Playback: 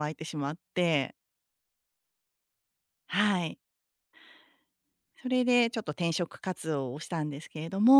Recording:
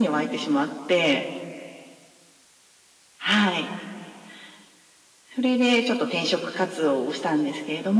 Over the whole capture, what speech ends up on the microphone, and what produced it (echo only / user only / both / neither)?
echo only